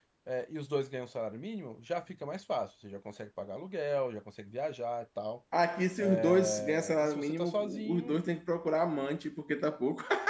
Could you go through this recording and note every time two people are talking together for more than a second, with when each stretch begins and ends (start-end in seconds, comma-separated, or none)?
6.0-8.2